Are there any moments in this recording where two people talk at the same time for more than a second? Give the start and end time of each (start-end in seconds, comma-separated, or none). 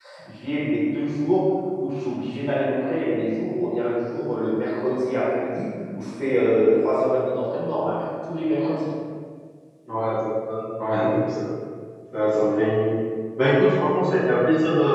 none